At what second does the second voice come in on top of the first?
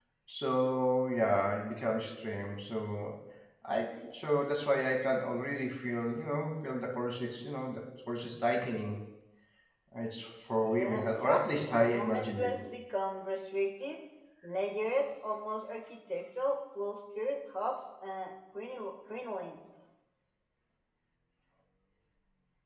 10.6 s

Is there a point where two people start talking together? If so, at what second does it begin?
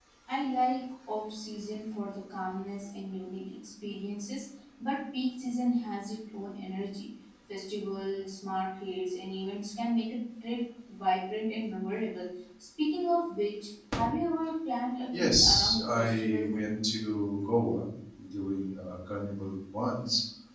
15.1 s

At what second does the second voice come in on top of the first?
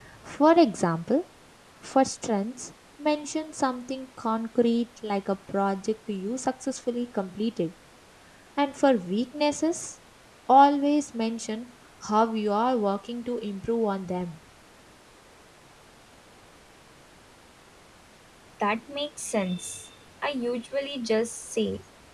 none

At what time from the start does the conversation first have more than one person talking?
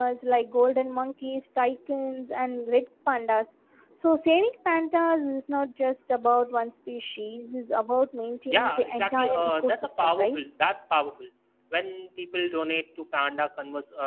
8.5 s

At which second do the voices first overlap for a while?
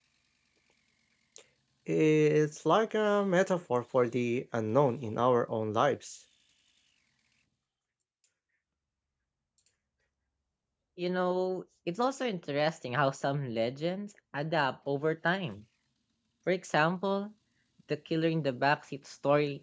none

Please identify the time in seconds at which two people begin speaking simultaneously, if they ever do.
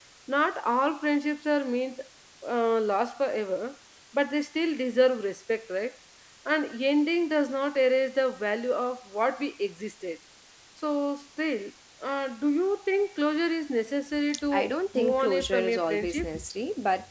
14.3 s

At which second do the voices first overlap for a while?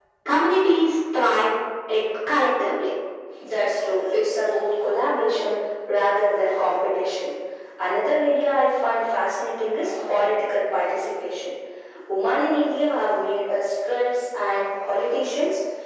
none

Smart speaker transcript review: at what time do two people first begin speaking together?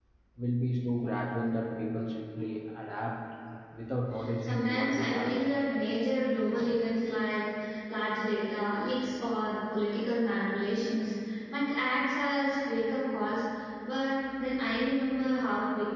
4.4 s

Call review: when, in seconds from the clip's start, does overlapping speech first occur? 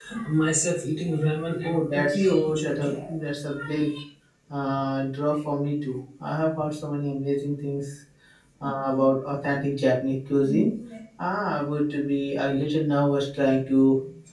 1.6 s

